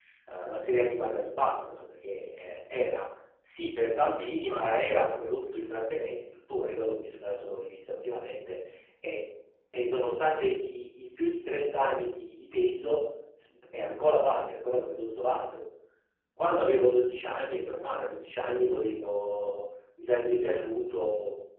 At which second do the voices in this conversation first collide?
4.4 s

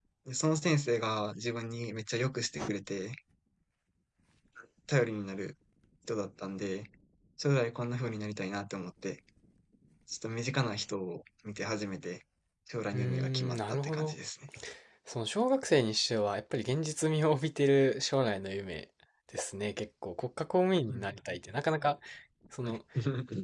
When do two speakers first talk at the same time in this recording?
12.9 s

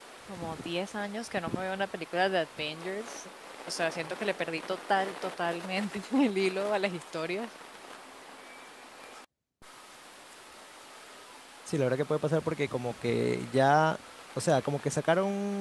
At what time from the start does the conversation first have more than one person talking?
none

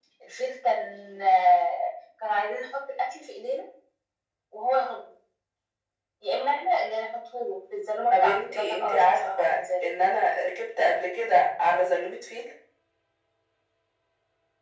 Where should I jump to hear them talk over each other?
8.1 s

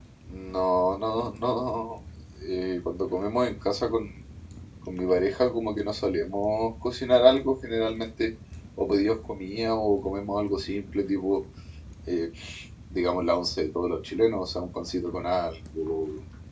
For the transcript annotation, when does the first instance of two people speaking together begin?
none

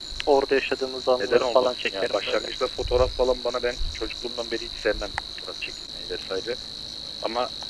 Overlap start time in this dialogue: 1.2 s

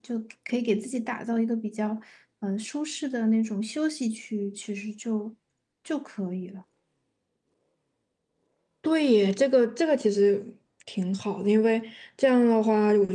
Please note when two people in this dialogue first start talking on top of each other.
none

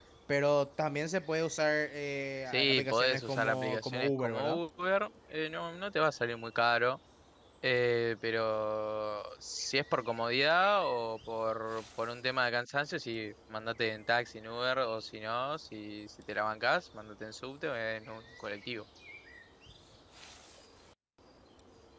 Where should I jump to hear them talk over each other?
2.5 s

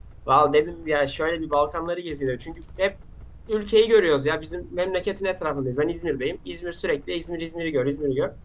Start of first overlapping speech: none

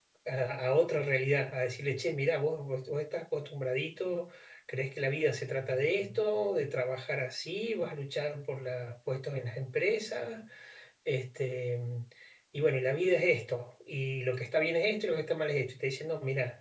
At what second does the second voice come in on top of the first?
none

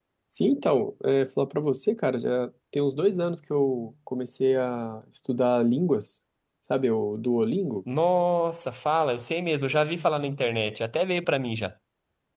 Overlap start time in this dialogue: none

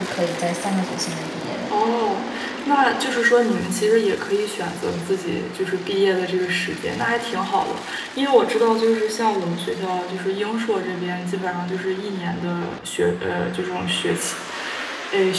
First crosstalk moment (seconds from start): none

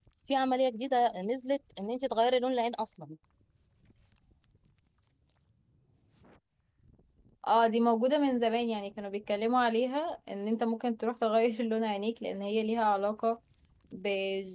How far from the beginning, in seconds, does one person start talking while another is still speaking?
none

